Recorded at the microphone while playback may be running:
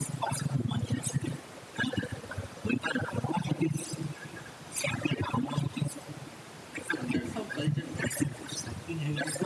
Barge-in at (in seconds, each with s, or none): 7.0 s